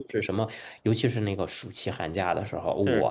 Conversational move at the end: listening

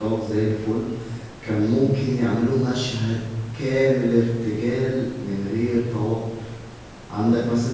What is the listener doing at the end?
listening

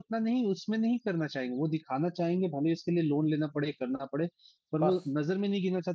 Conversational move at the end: listening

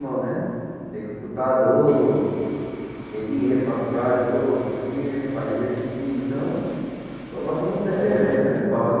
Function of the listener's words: taking over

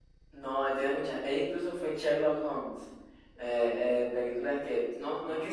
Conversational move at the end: listening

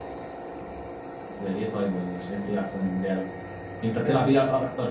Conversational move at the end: listening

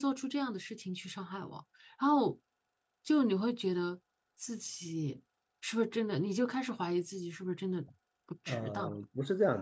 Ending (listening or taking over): taking over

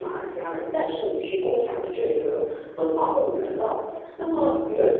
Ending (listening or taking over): listening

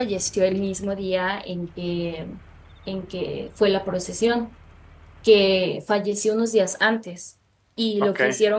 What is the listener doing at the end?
listening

